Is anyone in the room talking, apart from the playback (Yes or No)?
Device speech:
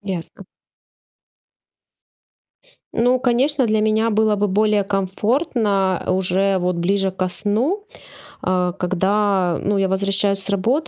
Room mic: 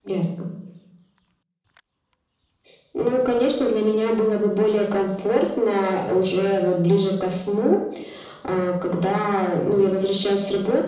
No